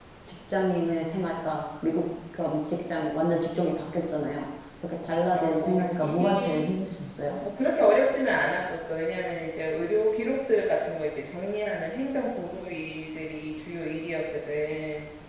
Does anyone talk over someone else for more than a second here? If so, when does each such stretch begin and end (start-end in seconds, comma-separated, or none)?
5.3-6.7